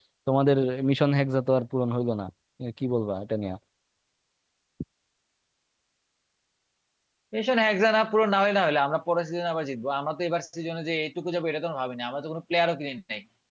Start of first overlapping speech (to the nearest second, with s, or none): none